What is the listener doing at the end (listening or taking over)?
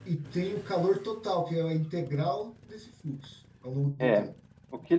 taking over